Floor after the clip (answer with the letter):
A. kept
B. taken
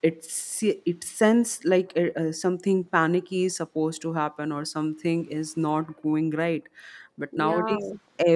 A